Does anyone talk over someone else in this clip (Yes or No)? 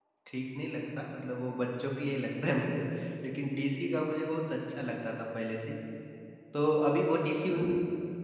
No